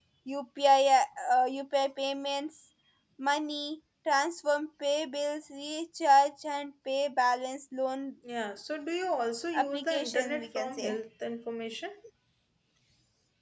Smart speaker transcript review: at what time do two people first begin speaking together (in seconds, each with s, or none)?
9.5 s